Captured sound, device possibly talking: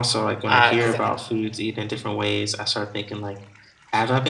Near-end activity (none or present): present